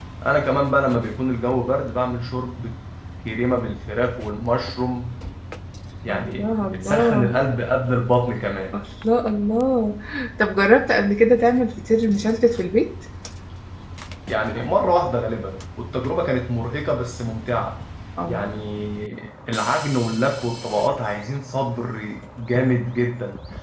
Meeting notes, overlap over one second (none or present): present